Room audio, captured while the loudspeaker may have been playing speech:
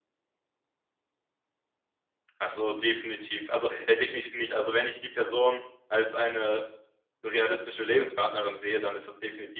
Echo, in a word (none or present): none